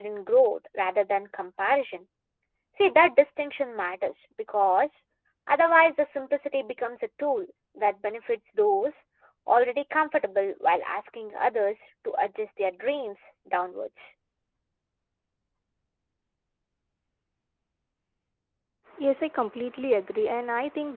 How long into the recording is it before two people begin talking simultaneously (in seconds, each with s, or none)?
none